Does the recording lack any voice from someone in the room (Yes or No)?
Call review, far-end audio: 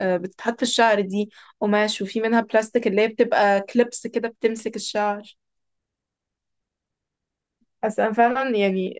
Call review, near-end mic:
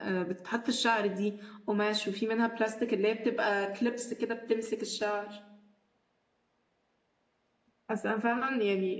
Yes